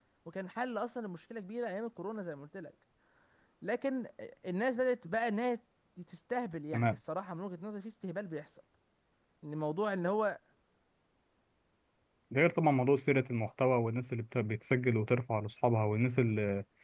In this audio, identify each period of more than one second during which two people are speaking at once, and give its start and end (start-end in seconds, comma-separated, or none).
none